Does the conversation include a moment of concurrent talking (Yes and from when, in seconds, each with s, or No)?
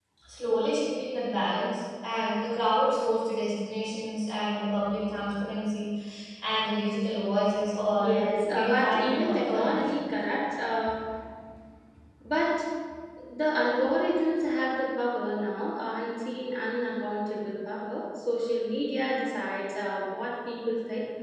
Yes, from 8.0 s